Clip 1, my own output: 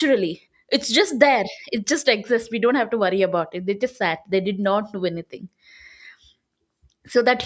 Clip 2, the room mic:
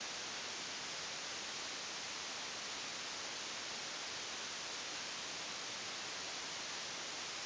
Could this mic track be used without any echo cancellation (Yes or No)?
Yes